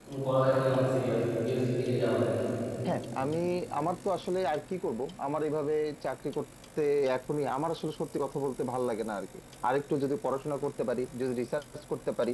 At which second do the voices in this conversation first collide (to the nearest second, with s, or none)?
none